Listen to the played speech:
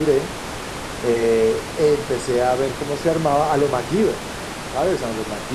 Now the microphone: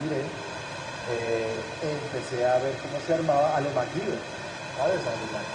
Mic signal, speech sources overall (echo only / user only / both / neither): echo only